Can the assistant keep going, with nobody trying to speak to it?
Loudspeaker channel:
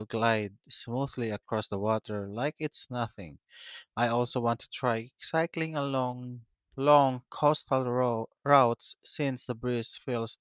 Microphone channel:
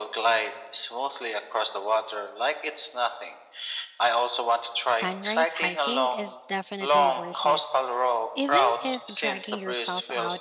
No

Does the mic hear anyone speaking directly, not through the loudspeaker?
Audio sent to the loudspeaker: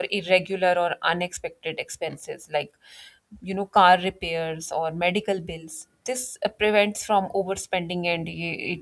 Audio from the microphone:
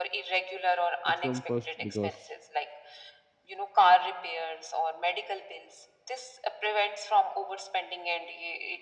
Yes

